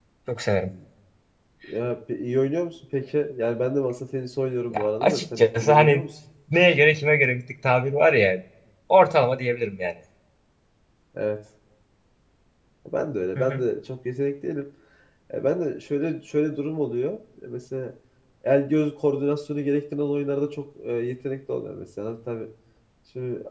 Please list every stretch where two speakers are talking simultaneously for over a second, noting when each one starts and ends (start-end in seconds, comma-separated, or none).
4.7-6.0